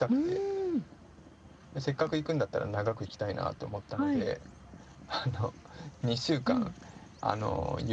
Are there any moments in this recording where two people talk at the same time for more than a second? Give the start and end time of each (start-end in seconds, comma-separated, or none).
none